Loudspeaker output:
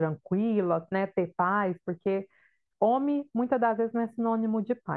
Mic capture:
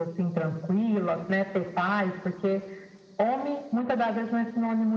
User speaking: No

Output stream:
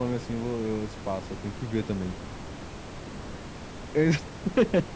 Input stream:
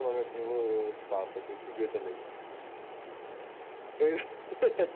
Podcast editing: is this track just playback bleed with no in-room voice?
Yes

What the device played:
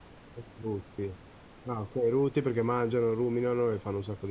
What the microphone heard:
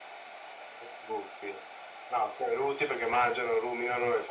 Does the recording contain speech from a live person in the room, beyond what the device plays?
No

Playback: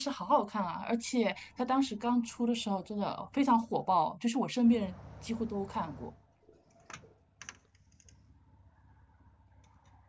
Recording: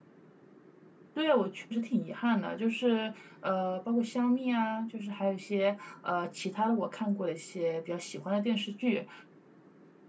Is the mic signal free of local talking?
No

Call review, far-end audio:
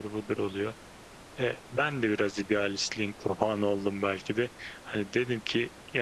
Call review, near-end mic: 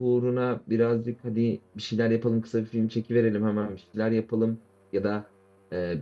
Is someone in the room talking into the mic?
Yes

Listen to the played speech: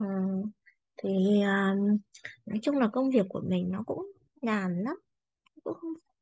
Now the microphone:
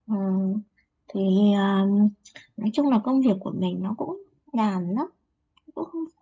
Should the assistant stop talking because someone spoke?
No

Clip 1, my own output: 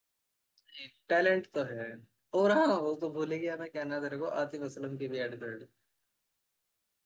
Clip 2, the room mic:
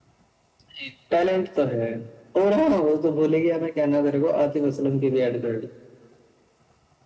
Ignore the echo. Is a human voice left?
No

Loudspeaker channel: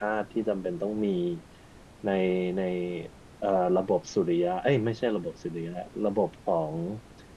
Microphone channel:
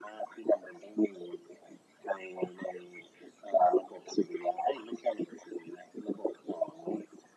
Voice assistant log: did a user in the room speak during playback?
No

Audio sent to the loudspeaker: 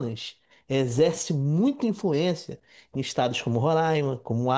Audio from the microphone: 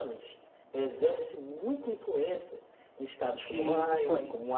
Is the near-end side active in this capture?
Yes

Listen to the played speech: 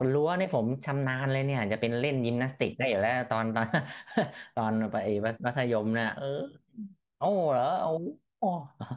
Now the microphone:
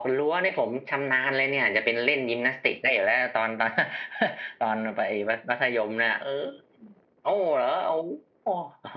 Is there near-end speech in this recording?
No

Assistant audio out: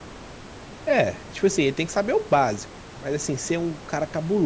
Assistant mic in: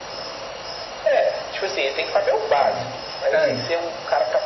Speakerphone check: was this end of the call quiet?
No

